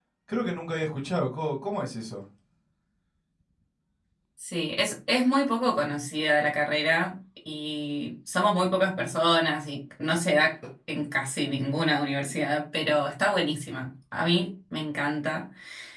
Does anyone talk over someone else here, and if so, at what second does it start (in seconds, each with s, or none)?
none